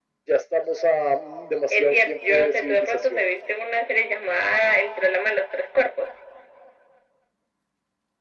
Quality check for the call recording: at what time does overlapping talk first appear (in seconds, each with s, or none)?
1.7 s